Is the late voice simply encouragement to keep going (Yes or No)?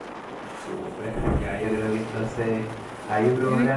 Yes